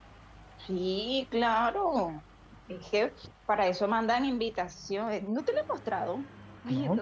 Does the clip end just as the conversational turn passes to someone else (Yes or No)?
No